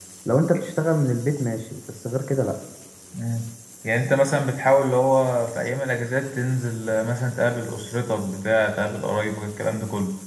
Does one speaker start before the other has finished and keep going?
No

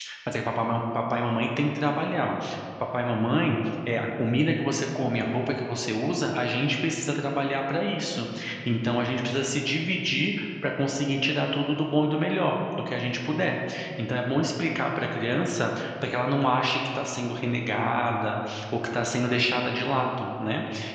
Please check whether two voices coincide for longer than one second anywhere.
No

